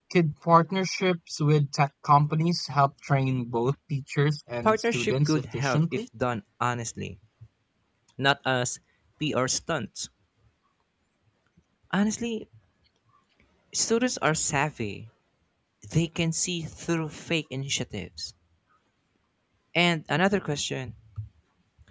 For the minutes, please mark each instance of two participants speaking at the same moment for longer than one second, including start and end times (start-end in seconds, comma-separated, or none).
4.6-6.0